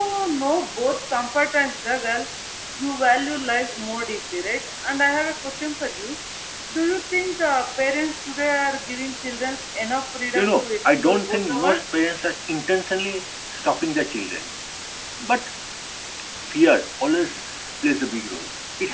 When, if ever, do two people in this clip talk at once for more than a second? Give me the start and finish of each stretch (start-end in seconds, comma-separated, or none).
10.3-11.8